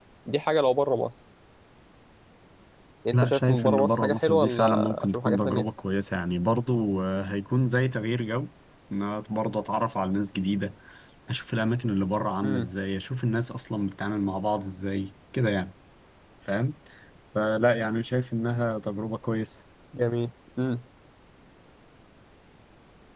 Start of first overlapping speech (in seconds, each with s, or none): 3.1 s